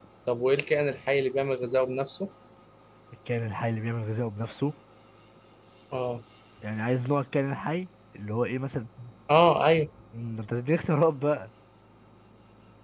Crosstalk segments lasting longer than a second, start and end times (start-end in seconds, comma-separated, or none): none